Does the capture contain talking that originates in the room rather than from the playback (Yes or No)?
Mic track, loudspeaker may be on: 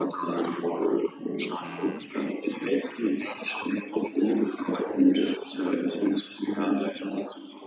Yes